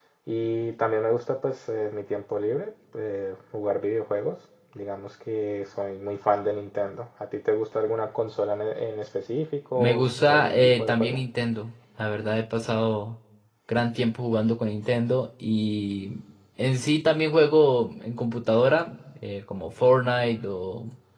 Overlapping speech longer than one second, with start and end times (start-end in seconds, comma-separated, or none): 9.8-11.2